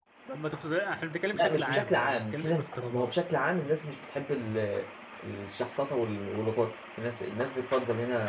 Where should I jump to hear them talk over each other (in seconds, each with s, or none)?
1.3 s